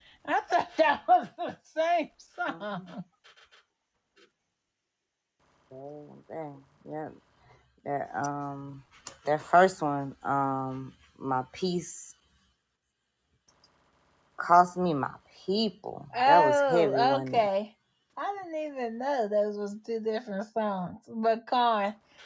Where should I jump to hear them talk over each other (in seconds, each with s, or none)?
16.1 s